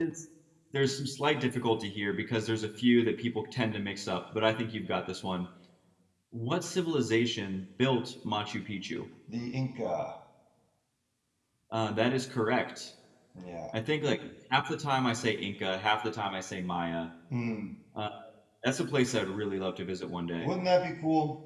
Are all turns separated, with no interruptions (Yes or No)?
Yes